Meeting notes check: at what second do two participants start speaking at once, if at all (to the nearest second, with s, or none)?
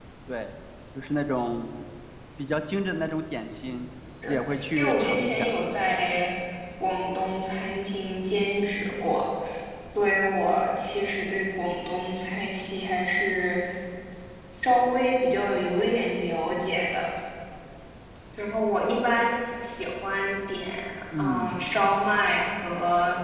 4 s